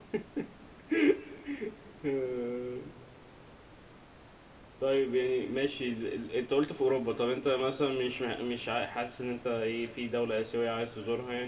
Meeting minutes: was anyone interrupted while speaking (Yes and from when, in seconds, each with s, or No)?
No